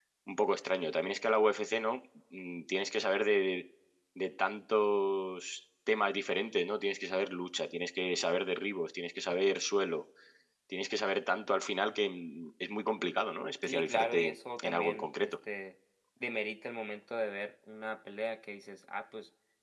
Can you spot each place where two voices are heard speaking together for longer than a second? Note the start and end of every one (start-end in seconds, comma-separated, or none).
13.6-15.3